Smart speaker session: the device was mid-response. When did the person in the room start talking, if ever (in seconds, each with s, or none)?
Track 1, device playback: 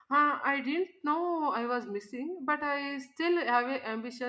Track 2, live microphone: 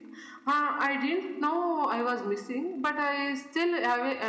none